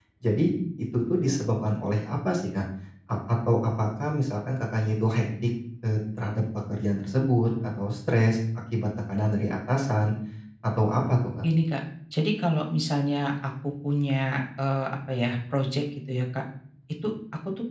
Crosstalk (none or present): none